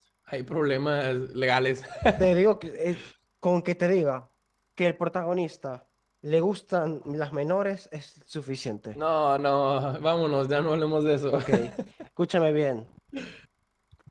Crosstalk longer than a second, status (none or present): none